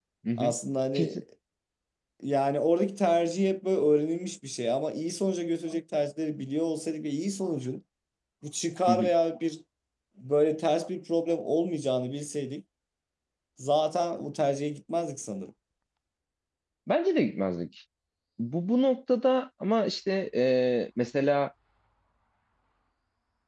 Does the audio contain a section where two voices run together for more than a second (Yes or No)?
No